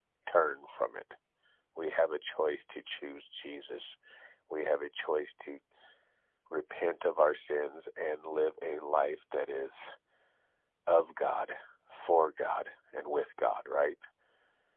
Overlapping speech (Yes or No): No